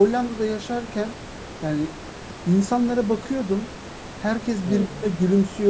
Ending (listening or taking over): listening